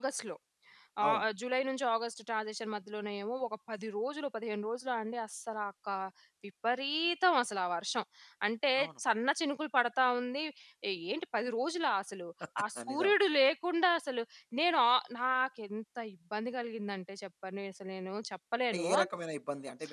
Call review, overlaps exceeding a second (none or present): none